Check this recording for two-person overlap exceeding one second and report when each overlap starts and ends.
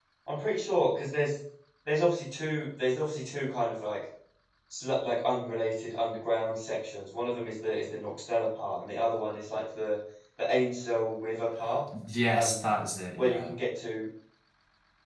none

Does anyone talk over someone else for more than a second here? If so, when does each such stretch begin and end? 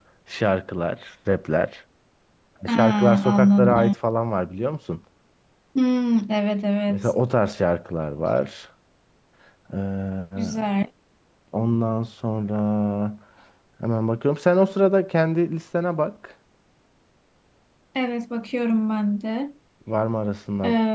2.7-3.9

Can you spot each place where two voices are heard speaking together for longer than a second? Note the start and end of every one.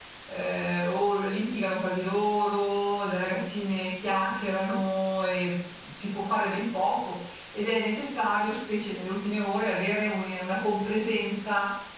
none

